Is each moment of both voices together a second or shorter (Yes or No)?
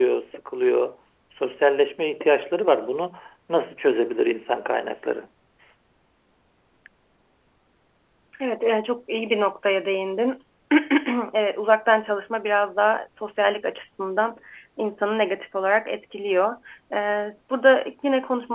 Yes